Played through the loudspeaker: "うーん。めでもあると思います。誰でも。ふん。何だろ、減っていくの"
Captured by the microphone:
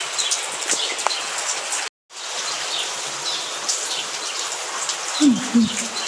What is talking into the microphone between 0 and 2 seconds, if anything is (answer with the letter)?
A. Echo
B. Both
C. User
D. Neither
D